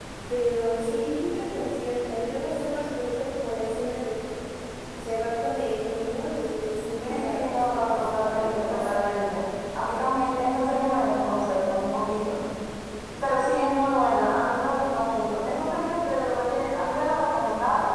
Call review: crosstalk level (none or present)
present